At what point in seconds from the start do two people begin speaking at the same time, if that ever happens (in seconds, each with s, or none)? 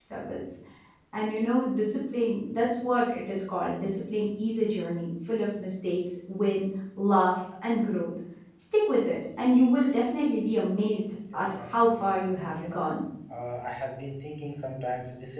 11.2 s